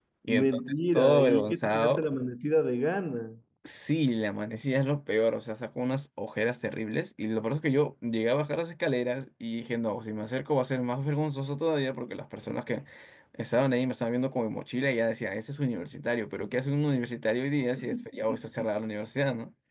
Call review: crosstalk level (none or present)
present